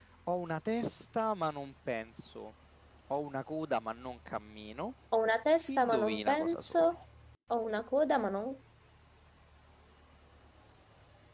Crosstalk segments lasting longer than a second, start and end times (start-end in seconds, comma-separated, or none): 5.7-7.0